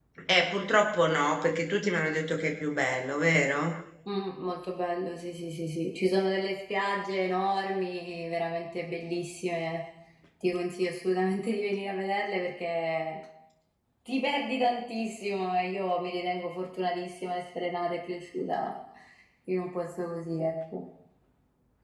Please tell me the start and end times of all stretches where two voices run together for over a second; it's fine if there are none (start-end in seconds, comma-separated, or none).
none